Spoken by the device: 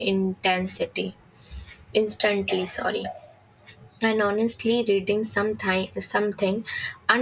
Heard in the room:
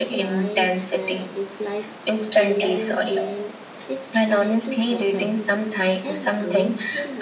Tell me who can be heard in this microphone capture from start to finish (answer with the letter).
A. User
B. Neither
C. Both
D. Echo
C